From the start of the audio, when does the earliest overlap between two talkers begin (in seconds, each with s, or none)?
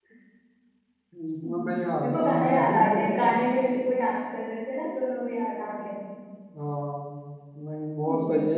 1.4 s